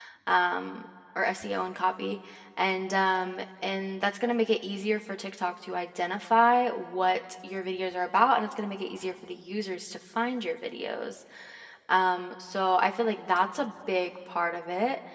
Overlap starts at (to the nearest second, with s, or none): none